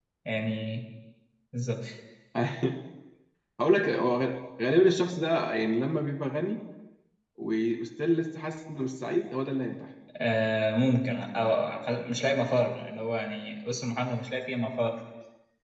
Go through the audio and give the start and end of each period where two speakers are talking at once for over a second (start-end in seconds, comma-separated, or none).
none